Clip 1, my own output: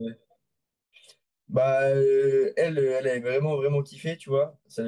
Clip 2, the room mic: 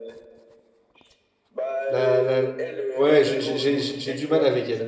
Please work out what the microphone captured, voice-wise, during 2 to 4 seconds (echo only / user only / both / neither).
both